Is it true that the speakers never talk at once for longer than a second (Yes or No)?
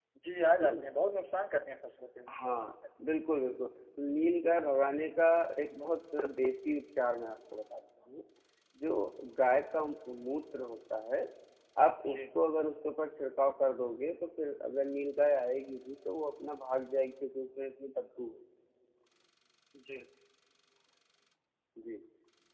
Yes